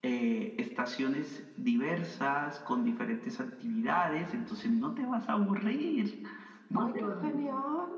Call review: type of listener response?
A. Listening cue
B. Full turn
B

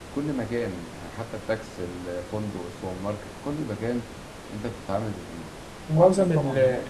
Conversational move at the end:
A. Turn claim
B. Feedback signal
A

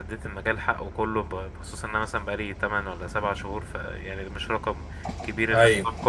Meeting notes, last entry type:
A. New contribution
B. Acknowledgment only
B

